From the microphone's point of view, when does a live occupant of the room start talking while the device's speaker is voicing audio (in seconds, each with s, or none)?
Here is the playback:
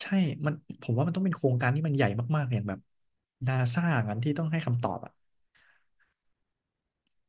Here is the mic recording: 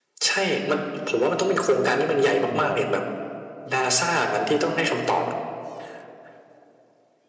2.5 s